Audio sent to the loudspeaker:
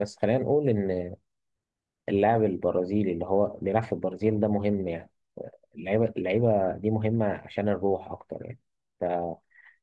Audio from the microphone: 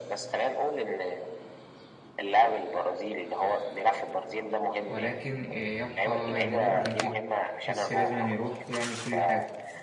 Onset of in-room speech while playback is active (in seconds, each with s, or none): 4.8 s